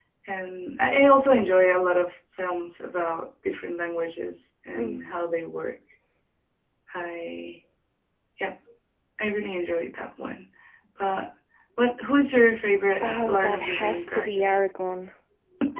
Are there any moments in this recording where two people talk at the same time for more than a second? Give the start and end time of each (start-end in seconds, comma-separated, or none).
13.0-14.5